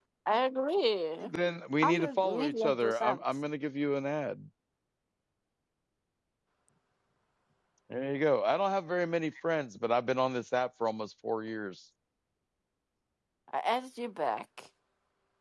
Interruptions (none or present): present